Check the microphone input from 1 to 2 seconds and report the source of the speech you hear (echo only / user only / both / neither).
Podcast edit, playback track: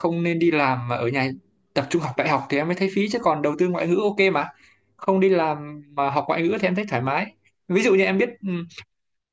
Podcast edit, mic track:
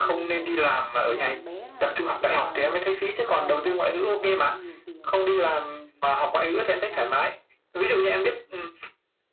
both